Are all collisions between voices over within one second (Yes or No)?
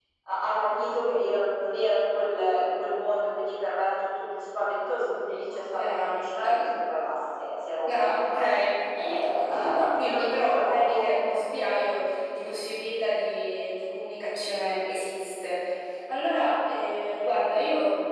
No